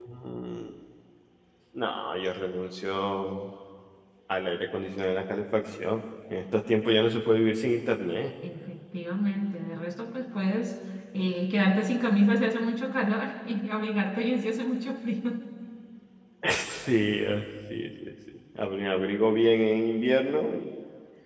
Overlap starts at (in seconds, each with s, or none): none